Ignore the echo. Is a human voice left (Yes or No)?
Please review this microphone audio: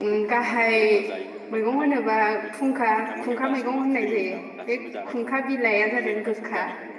Yes